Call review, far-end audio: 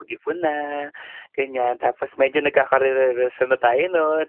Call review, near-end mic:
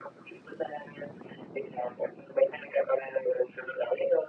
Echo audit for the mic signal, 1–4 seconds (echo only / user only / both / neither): echo only